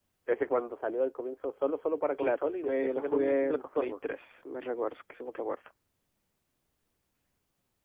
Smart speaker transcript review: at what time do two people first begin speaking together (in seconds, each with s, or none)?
2.2 s